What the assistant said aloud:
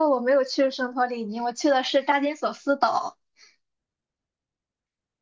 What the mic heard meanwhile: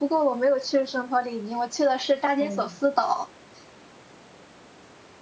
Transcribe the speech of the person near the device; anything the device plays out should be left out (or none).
嗯，